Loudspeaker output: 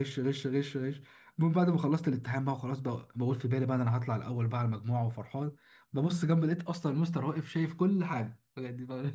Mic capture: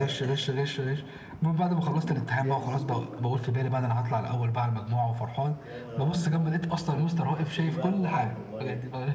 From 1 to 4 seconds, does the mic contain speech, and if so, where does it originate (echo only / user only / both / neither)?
both